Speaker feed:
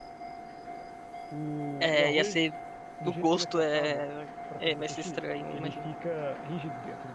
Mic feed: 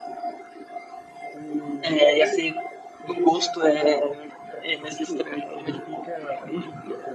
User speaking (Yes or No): No